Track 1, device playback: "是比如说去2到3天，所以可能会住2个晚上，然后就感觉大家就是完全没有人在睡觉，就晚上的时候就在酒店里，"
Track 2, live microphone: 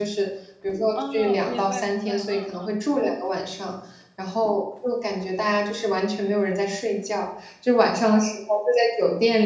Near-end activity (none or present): present